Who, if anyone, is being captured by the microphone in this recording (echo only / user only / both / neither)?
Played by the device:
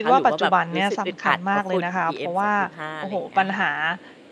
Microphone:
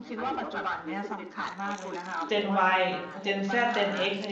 both